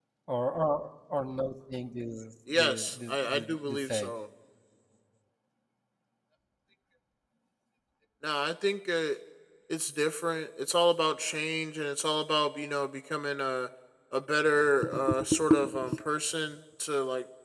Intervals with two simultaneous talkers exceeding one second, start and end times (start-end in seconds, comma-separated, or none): 2.5-4.1